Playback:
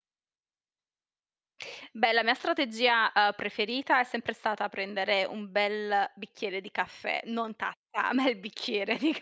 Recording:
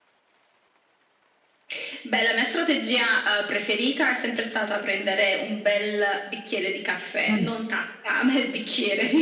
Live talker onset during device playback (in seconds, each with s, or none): 7.2 s